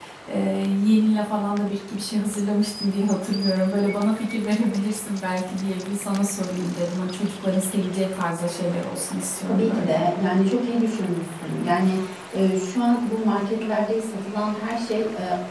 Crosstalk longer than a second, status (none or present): none